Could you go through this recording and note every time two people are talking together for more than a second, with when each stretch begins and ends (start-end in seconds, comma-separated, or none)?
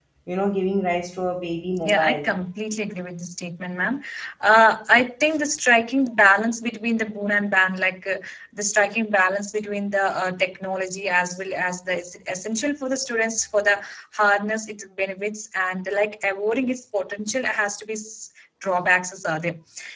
none